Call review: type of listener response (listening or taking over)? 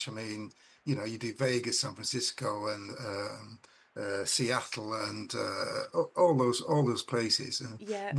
listening